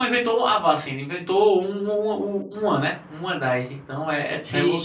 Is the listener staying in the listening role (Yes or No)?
No